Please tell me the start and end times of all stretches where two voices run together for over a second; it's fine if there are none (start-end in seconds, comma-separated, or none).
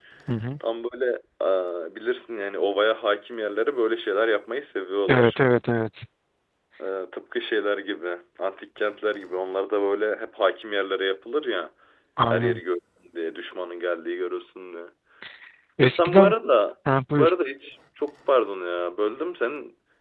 none